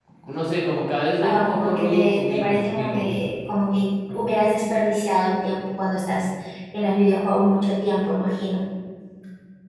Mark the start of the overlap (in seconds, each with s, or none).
1.2 s